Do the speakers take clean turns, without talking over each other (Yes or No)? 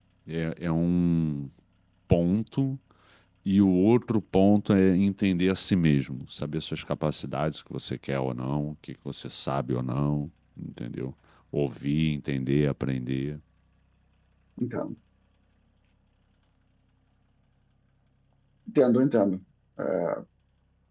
Yes